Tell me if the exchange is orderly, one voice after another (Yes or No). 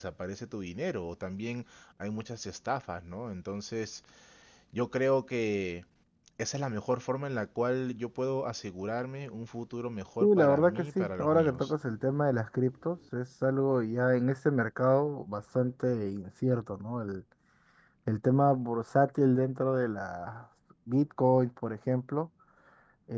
No